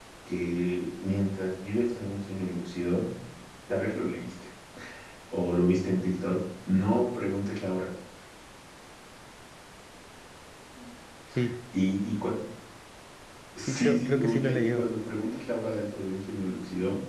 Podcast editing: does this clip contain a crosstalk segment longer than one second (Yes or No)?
Yes